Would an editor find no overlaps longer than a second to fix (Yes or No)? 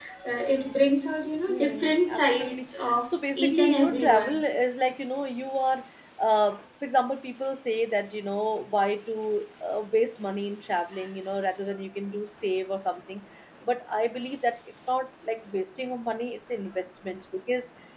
No